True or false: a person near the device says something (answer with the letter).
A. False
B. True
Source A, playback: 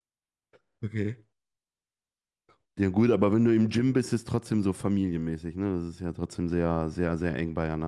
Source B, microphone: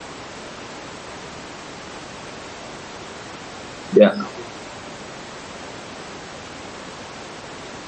B